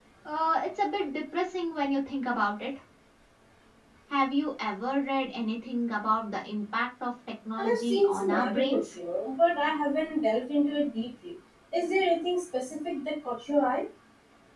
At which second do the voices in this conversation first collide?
7.6 s

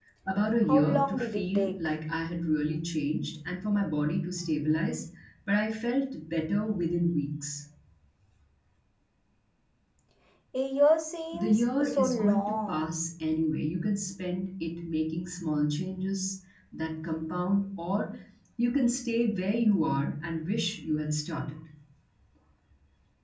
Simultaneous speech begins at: 0.7 s

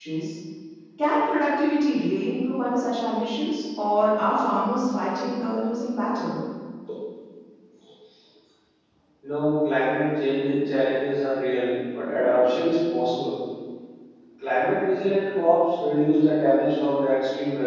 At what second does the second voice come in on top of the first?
none

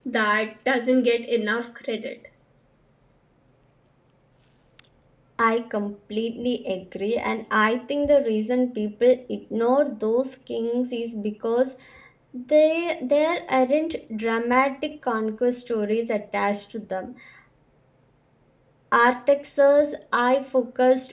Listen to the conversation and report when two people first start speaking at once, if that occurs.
none

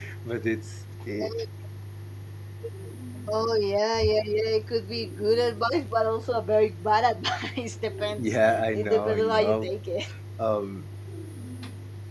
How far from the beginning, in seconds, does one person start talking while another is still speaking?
8.2 s

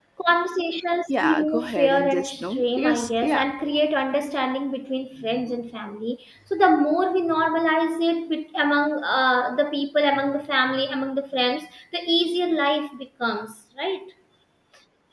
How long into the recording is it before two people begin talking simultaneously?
1.1 s

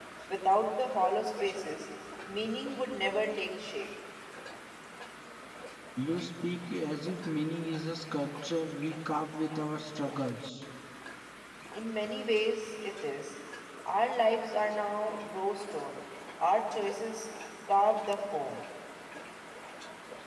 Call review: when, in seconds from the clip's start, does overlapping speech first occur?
none

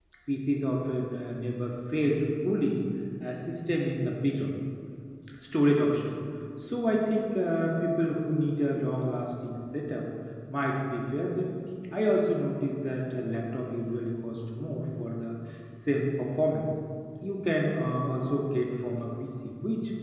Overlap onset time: none

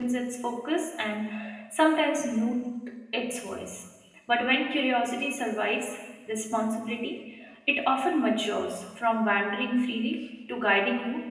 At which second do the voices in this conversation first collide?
none

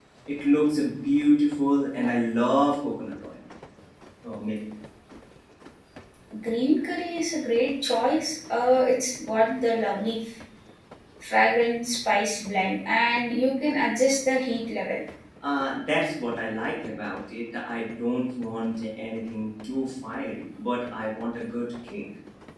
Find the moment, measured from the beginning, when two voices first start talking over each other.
none

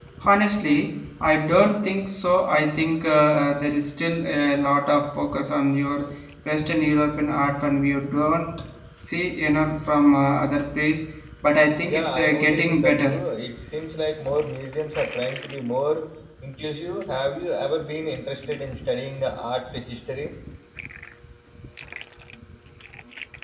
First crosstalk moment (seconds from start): 11.9 s

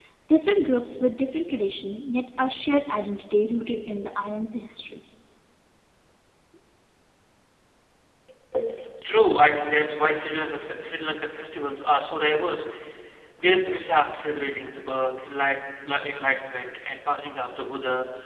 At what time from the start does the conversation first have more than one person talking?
none

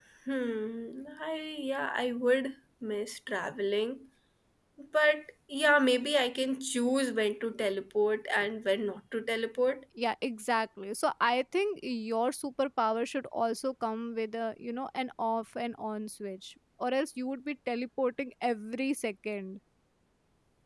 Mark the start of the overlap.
none

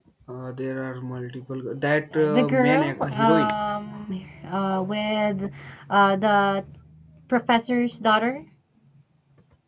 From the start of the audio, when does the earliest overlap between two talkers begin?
2.1 s

